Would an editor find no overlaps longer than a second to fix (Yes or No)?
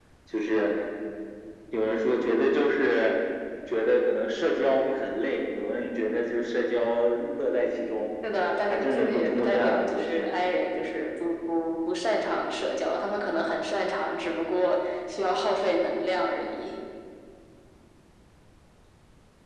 No